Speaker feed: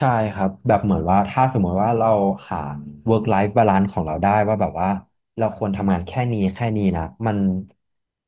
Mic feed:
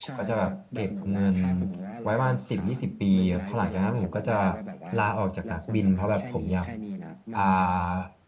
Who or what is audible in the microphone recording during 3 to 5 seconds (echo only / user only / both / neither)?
both